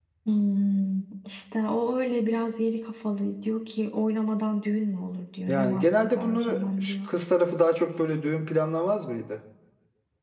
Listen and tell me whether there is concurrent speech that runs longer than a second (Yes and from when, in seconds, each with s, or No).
Yes, from 5.5 s